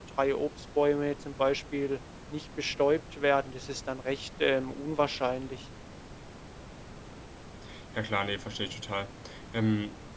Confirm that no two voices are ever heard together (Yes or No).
Yes